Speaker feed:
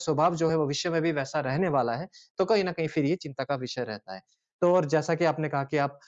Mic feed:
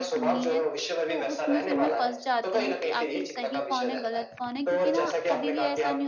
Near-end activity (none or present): present